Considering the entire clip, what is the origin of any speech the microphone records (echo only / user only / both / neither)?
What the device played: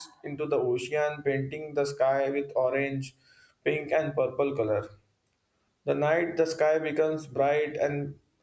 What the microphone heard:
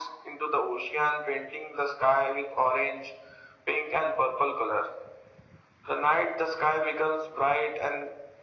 echo only